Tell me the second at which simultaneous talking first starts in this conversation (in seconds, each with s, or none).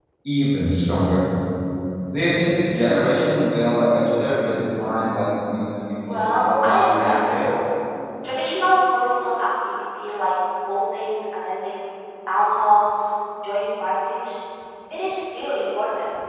6.0 s